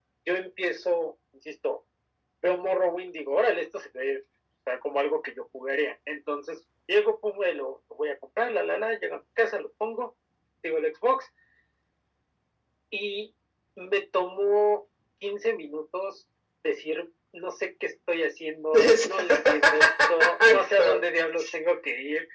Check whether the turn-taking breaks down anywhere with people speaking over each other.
Yes, from 18.7 s

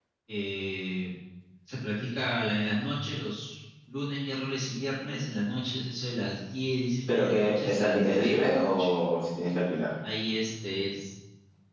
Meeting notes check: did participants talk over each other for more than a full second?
Yes, from 7.1 s

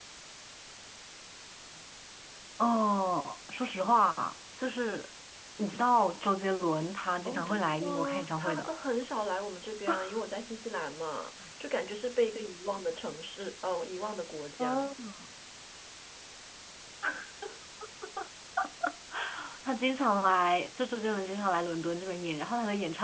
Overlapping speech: Yes, from 7.2 s

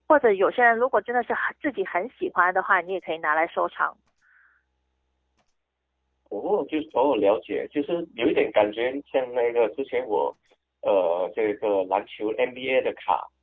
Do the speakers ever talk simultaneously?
No

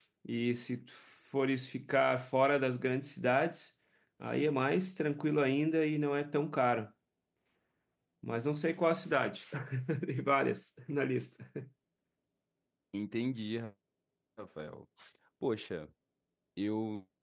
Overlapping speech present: No

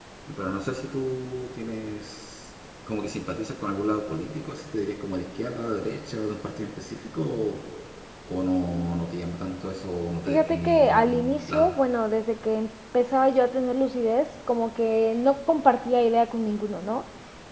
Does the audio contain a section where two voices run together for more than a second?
Yes, from 10.3 s

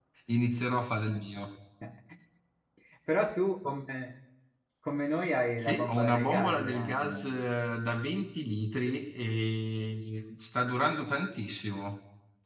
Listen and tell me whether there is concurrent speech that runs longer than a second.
Yes, from 5.6 s

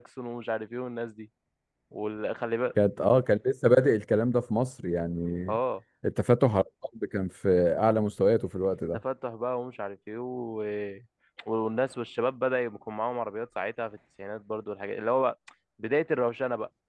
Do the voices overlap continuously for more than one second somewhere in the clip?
No

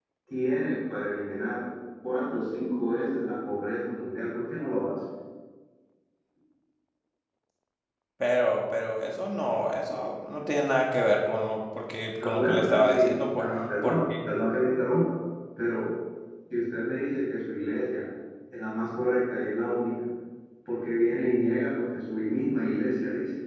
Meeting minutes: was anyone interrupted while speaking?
Yes, from 12.2 s

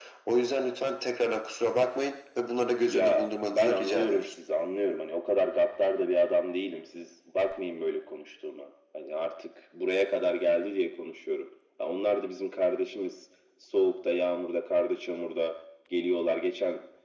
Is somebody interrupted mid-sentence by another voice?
Yes, from 2.9 s

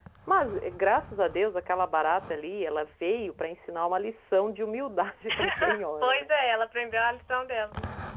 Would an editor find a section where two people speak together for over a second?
No

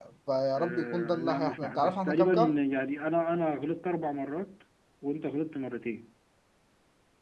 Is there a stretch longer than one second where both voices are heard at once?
Yes, from 0.6 s

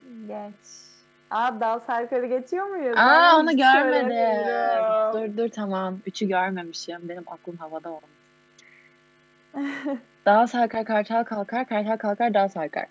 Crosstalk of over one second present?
Yes, from 2.9 s

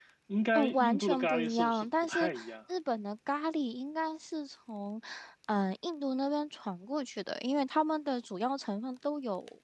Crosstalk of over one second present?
Yes, from 0.5 s

